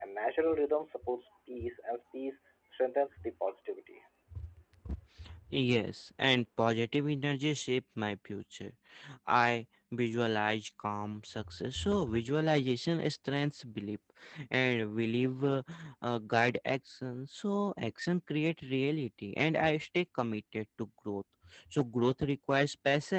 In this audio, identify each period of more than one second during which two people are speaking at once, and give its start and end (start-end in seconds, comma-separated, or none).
none